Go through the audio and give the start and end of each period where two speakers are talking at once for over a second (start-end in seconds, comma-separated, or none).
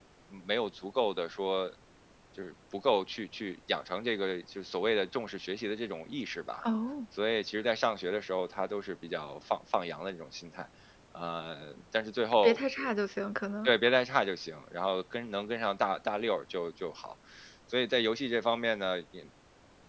none